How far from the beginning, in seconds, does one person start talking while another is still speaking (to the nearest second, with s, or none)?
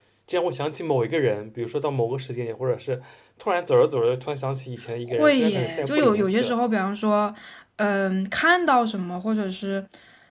5 s